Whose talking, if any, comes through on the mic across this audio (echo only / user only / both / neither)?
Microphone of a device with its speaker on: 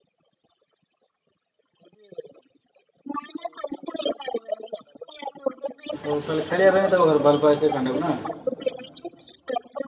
both